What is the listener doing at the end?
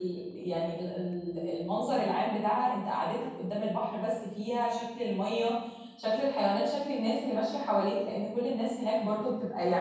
listening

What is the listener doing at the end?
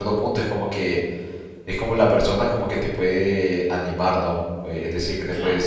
listening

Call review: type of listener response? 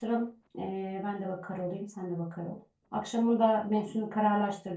listening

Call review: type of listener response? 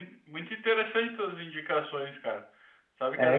listening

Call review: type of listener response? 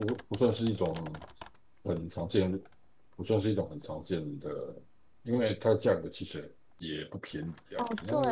taking over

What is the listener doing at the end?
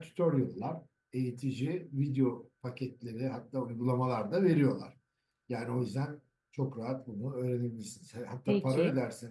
listening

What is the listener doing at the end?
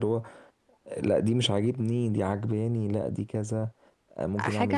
taking over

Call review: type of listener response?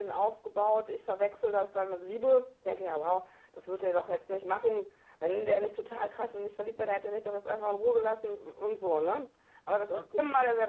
listening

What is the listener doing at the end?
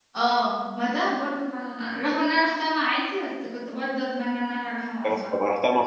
taking over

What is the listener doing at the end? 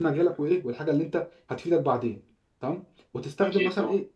listening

